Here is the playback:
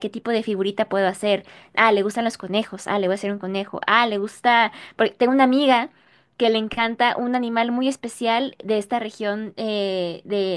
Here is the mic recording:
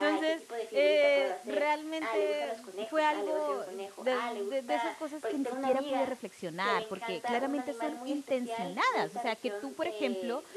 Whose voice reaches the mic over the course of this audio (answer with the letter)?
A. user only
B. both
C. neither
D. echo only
B